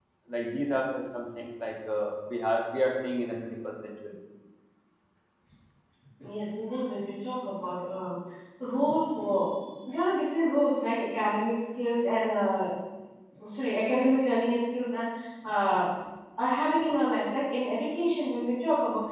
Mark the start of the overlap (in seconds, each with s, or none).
none